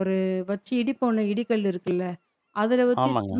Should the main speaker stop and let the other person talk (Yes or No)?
No